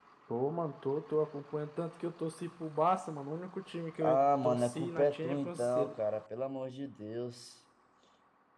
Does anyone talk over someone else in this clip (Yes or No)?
Yes